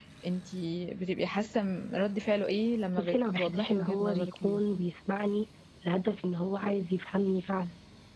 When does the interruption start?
3.0 s

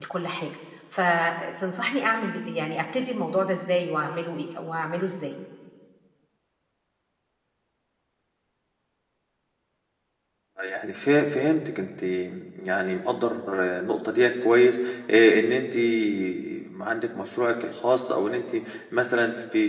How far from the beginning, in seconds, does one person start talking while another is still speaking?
none

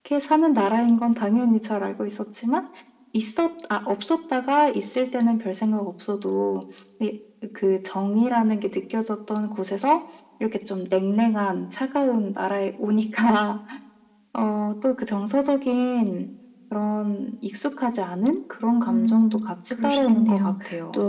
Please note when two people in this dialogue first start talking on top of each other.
18.8 s

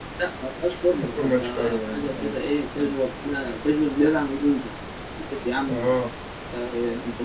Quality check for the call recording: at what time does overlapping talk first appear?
0.9 s

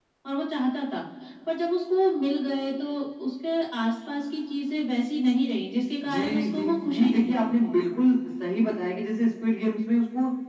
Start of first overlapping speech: 6.0 s

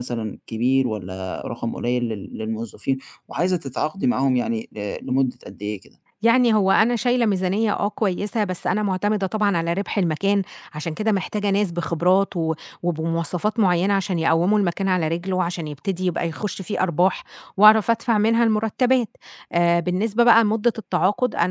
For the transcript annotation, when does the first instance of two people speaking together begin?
none

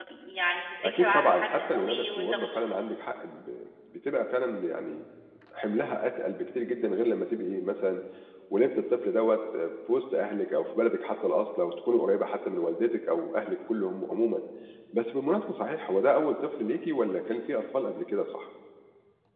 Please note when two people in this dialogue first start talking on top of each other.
0.8 s

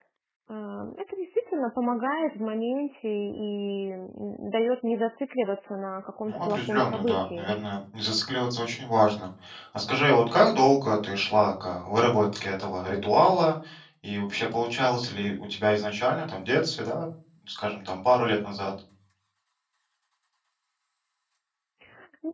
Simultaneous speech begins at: 6.3 s

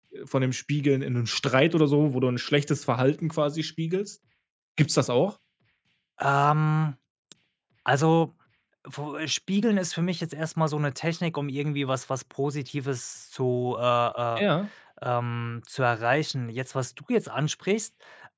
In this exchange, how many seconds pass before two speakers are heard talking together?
none

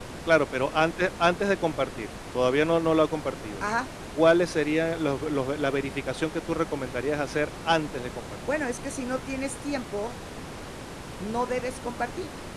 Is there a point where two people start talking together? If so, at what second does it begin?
none

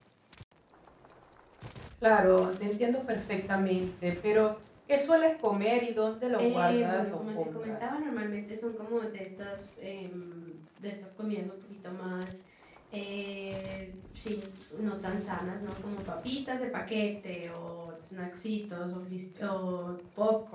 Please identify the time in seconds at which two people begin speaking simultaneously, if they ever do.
6.4 s

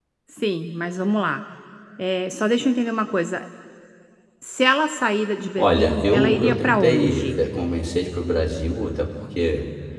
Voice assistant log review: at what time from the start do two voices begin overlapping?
5.6 s

